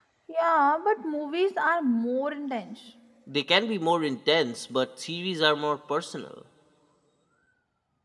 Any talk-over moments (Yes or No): No